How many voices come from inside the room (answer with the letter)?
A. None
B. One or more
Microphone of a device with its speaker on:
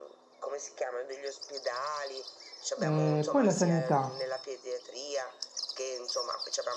B